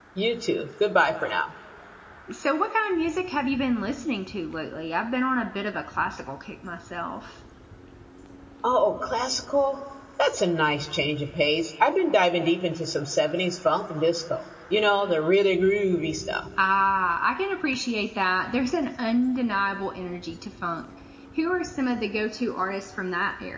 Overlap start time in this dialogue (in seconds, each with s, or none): none